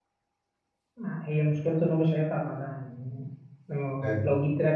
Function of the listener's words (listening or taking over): listening